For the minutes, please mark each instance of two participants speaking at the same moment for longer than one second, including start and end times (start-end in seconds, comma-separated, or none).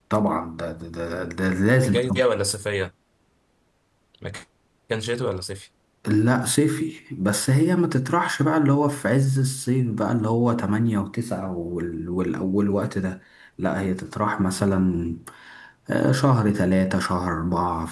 none